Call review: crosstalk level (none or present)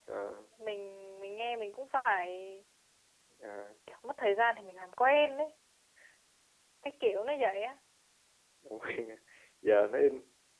none